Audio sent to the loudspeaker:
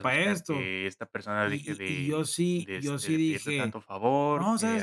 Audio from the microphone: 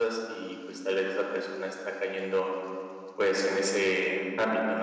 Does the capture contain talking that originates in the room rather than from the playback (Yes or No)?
Yes